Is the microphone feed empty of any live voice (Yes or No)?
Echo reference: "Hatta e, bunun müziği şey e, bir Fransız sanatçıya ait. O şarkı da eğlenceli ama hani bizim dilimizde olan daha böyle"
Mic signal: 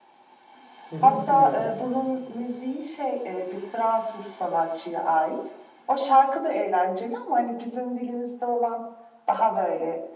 No